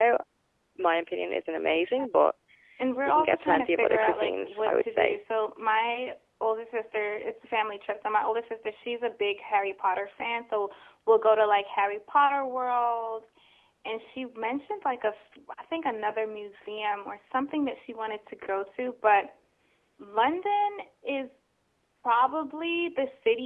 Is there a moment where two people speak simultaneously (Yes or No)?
Yes